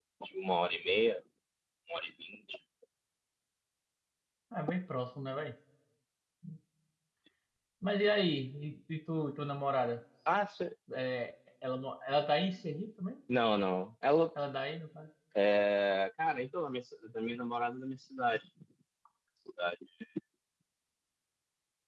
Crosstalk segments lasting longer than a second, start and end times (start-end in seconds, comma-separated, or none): none